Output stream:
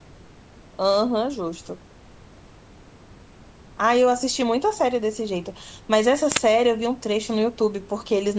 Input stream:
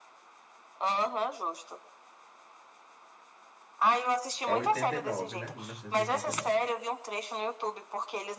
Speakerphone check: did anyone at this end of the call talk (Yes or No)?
Yes